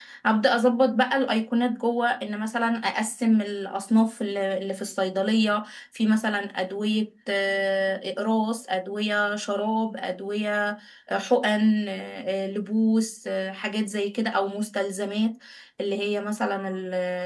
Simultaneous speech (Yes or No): No